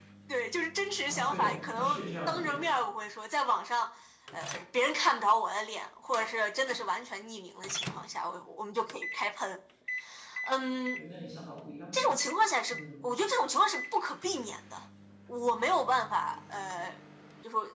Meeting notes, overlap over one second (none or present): present